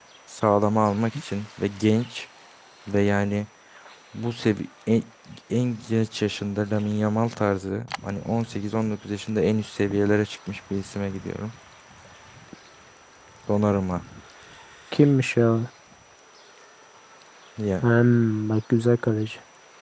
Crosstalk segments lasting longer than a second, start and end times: none

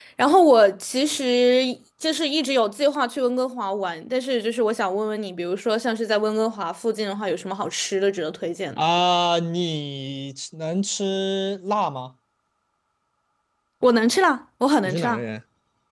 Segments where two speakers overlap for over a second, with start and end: none

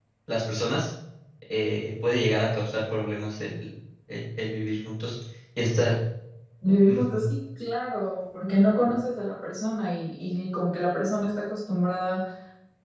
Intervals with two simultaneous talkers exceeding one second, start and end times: none

